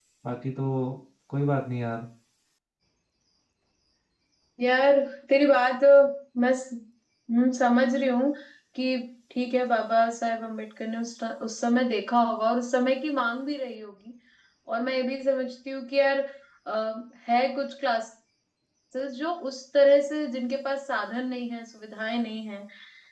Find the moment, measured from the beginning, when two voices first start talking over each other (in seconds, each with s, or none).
none